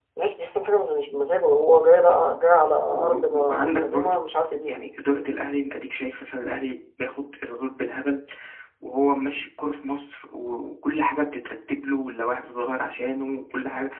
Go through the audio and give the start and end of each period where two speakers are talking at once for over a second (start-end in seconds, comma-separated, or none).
2.9-4.2